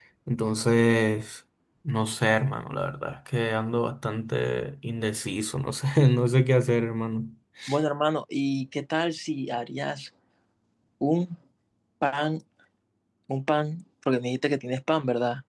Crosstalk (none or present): none